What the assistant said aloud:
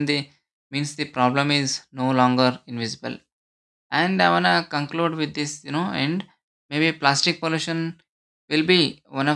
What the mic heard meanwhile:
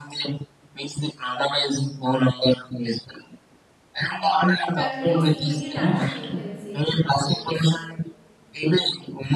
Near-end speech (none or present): present